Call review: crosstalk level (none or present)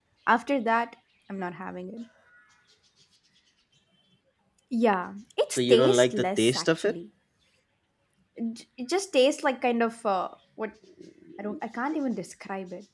present